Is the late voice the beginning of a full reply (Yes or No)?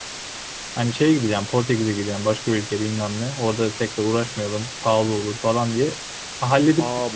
Yes